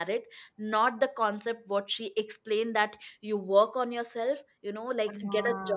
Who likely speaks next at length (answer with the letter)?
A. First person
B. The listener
A